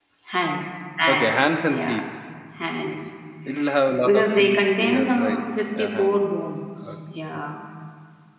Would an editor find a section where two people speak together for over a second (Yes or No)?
Yes